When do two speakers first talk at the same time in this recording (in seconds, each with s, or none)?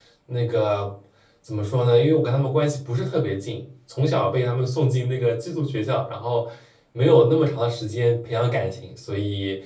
none